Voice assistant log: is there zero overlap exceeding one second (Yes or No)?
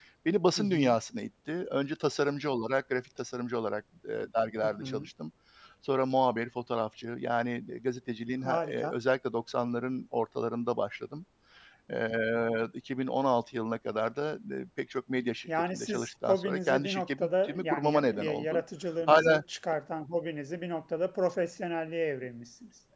No